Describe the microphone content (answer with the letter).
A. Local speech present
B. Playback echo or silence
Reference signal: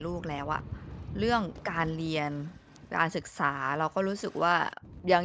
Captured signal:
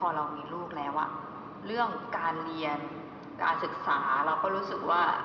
B